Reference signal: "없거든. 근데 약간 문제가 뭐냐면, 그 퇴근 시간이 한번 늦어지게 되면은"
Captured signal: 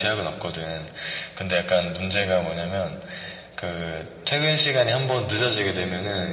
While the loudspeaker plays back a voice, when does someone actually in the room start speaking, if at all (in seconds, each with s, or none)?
none